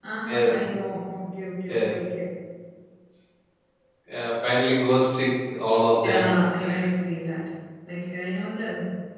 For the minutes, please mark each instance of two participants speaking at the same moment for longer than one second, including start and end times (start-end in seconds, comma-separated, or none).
none